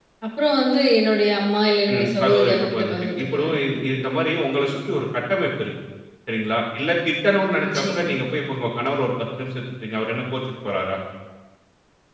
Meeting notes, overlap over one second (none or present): present